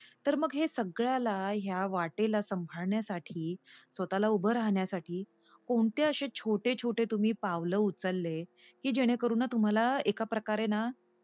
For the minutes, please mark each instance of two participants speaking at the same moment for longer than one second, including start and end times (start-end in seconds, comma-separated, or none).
none